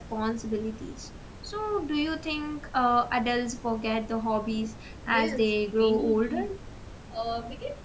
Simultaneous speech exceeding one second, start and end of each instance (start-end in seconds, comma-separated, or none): 5.1-6.4